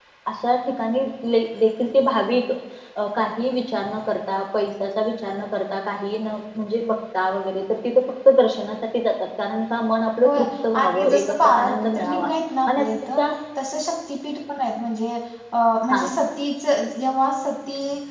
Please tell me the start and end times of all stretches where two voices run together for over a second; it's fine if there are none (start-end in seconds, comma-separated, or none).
10.8-12.1